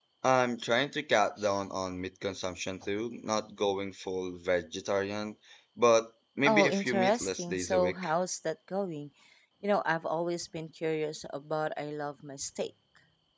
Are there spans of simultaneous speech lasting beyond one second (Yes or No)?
Yes